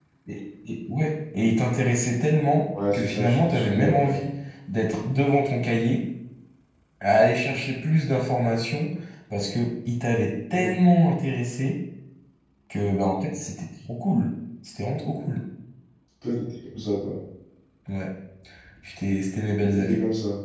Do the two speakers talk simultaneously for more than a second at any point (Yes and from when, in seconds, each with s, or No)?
Yes, from 2.9 s